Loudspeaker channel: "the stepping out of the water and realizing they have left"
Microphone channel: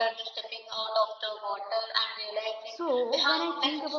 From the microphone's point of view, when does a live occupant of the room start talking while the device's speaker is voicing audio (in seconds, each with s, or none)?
2.6 s